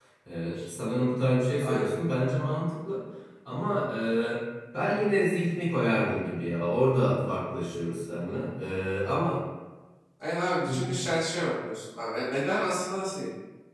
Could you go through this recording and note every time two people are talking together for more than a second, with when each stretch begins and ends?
none

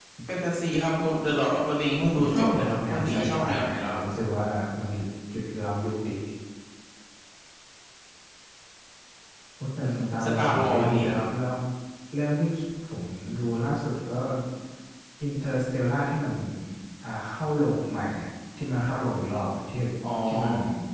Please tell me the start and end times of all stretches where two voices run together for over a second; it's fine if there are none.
2.1-4.0, 9.8-11.2

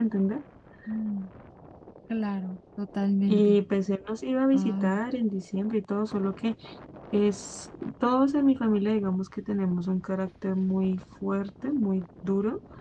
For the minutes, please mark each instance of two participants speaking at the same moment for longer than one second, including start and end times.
none

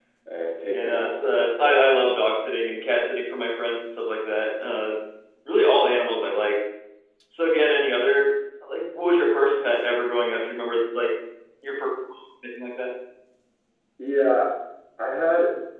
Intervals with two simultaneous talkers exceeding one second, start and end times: 0.7-2.1

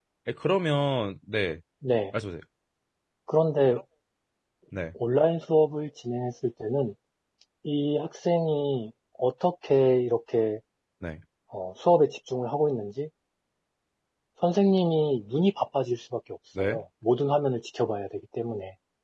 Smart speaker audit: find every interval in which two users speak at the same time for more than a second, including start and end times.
none

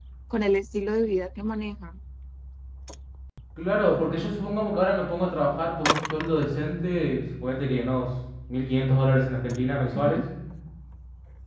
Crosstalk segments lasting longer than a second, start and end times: none

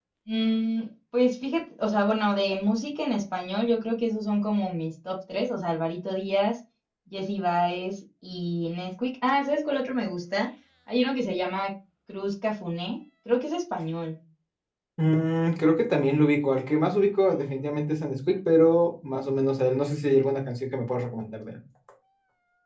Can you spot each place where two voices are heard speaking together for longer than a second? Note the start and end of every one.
none

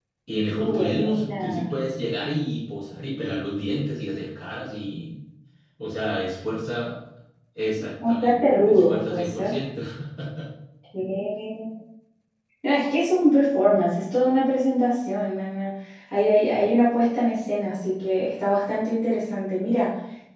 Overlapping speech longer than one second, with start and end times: 0.5-1.9, 8.1-9.5

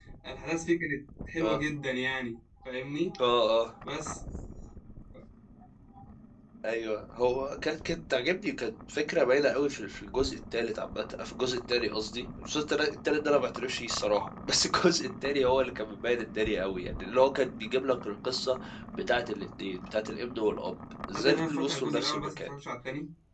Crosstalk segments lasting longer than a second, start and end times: 21.1-22.5

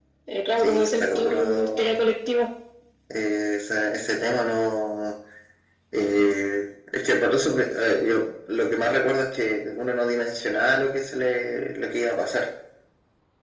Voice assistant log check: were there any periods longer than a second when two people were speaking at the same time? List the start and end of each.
0.6-1.9

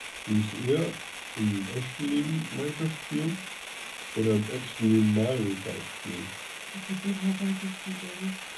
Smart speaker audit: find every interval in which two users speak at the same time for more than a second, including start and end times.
none

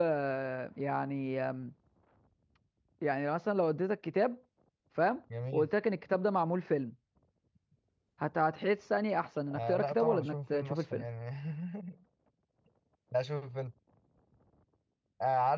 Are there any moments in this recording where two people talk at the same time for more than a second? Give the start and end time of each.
9.5-11.0

